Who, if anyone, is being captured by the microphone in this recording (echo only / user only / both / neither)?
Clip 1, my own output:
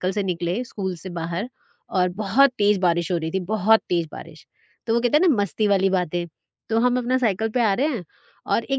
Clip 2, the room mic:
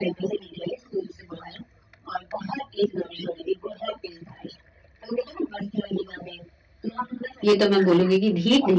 both